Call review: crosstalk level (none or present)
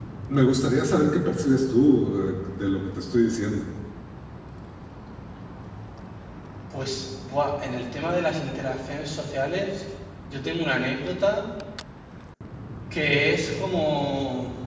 none